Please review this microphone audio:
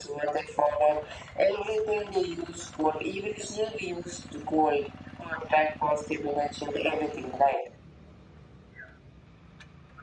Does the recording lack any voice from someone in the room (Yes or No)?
Yes